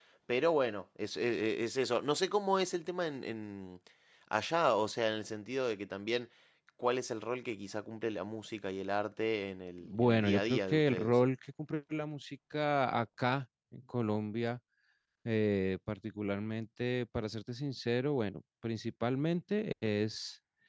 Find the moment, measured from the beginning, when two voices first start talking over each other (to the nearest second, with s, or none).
10 s